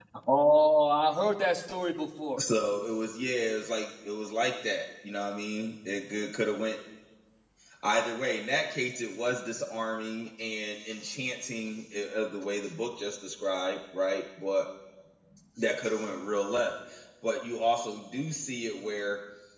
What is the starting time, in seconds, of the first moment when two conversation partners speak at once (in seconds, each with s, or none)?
none